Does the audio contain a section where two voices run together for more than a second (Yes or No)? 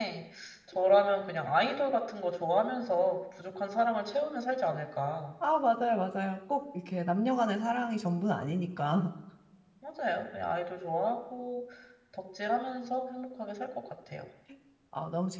No